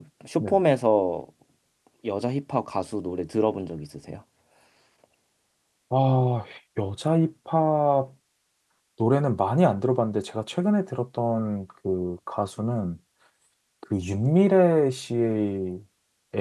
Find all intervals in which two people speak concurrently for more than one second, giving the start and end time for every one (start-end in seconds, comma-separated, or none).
none